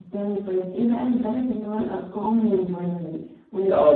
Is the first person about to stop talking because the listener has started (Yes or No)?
Yes